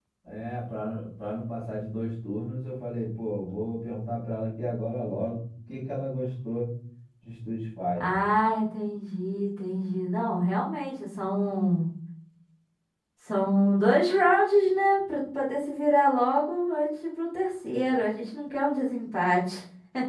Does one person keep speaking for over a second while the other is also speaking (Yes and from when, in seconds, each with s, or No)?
No